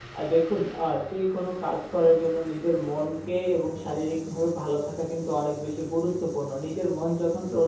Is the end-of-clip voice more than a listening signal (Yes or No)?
No